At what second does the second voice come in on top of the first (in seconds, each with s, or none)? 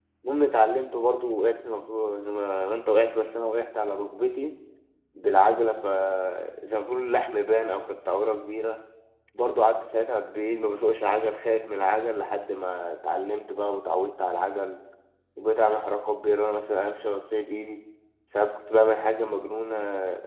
none